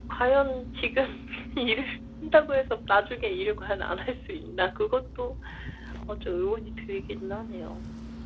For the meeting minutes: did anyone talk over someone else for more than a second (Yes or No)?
No